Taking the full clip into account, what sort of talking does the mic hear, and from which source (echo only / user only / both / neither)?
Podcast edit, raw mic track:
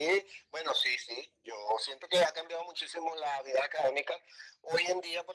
echo only